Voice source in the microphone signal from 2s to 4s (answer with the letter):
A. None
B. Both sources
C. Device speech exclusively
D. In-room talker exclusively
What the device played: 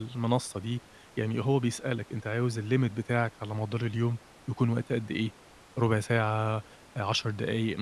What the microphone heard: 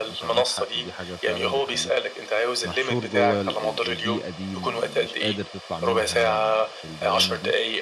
B